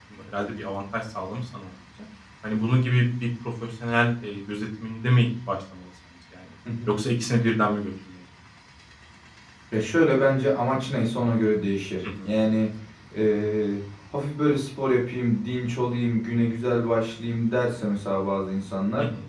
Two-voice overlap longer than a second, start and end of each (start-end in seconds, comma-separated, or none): none